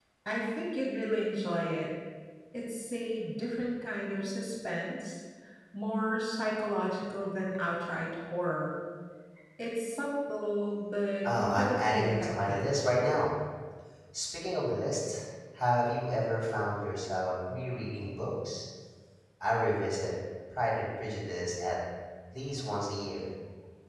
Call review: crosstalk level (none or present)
present